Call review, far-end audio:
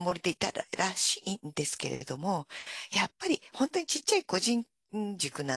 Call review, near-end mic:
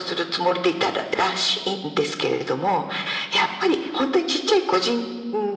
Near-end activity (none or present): none